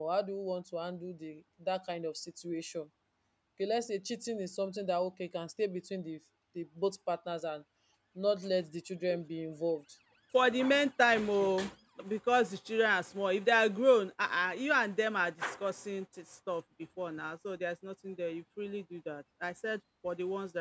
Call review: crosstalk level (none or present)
none